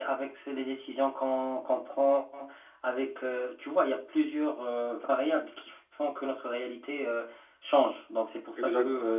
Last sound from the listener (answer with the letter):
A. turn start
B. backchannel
B